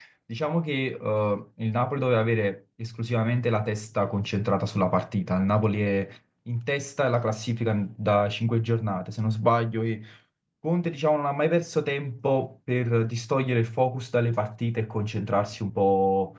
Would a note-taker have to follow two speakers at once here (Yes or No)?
No